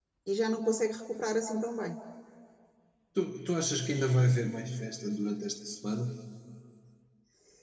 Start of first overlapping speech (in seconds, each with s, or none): none